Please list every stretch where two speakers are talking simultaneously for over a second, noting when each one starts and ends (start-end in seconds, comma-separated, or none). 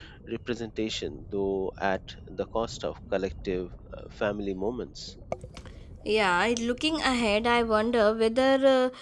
none